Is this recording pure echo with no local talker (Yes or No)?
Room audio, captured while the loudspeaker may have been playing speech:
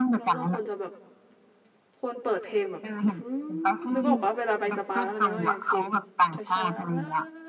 No